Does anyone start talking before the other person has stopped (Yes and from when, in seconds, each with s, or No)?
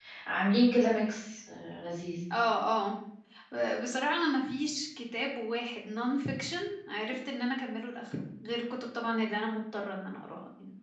No